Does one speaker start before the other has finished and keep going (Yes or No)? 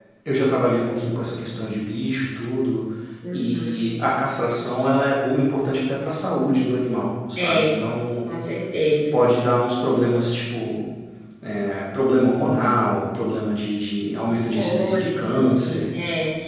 Yes